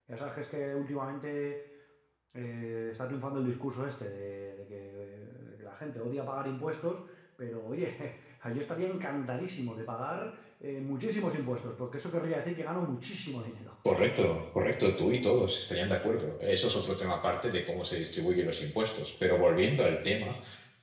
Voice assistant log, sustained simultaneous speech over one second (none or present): none